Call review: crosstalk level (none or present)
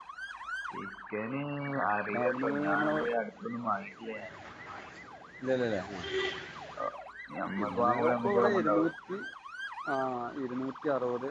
present